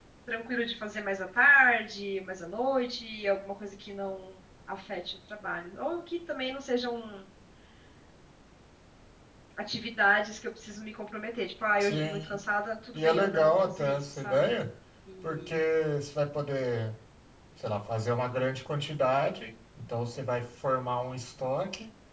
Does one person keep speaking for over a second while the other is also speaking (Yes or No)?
Yes